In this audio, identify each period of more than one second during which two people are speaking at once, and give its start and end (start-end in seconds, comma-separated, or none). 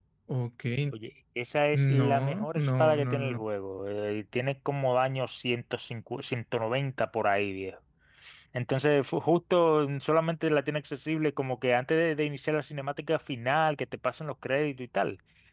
1.7-3.4